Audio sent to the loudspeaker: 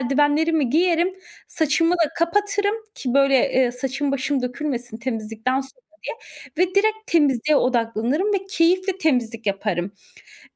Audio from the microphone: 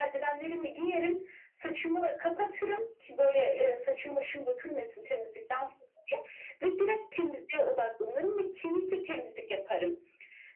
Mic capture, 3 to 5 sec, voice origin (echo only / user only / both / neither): echo only